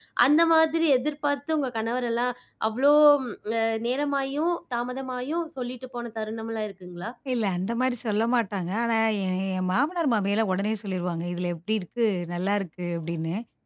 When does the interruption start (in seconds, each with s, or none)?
none